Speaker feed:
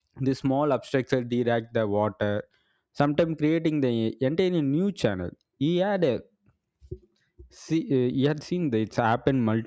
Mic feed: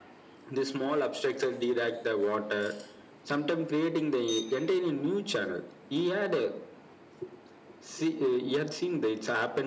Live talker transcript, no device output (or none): none